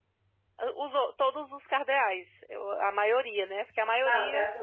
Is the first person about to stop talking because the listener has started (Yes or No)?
Yes